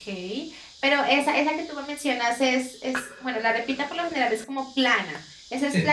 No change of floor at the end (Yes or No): Yes